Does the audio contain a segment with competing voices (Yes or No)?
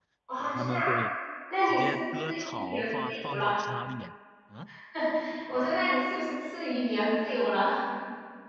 Yes